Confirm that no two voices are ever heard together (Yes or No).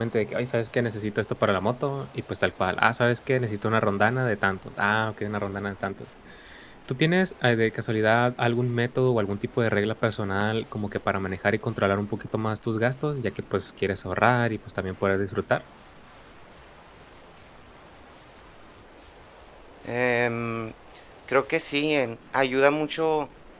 Yes